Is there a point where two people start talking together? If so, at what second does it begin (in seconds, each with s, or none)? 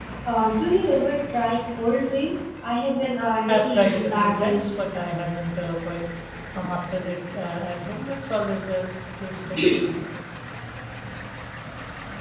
3.5 s